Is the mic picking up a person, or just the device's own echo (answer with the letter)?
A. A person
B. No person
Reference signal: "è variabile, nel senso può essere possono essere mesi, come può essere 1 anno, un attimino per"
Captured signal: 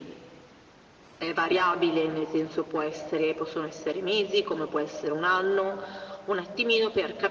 B